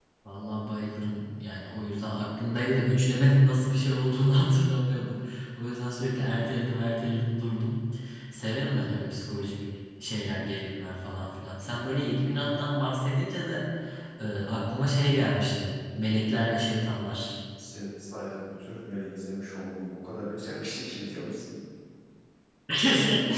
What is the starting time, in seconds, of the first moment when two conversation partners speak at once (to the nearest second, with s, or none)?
none